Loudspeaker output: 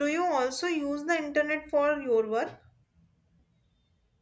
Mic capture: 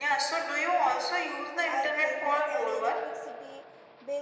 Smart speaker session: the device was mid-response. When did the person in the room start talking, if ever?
1.6 s

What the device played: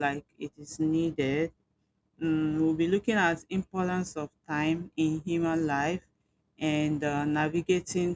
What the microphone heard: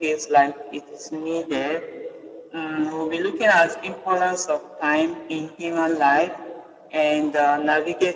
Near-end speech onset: none

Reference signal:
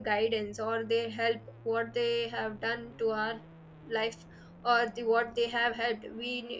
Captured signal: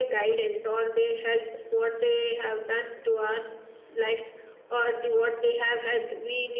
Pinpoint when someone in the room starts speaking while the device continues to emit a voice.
none

